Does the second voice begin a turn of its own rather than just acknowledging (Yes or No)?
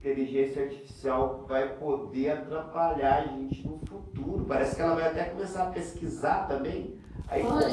No